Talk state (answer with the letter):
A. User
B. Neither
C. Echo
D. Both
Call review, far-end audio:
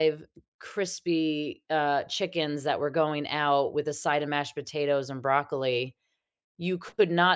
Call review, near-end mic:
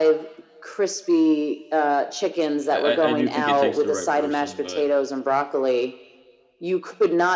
D